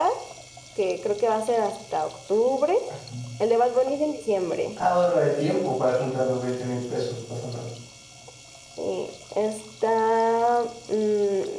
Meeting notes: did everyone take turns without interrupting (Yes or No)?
Yes